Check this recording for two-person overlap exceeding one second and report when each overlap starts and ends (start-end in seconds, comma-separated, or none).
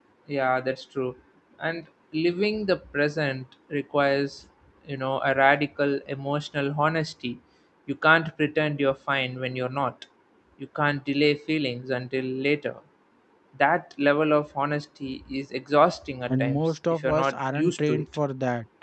16.3-18.0